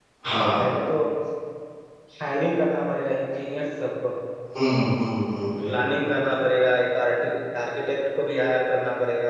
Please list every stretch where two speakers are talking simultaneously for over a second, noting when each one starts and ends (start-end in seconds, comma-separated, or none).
none